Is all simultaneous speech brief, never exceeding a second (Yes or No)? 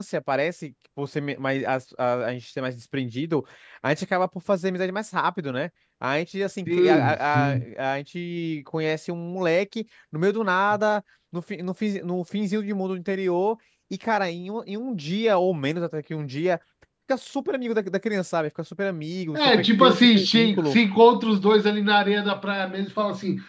No